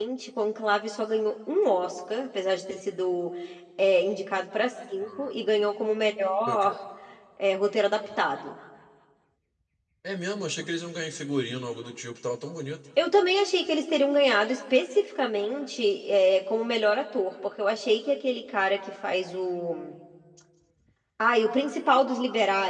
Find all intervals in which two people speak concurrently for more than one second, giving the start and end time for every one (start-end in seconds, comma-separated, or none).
none